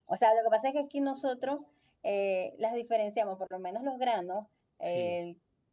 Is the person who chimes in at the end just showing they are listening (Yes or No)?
Yes